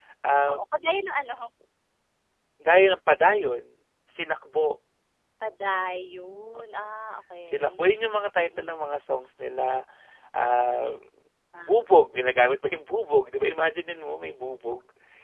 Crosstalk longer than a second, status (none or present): none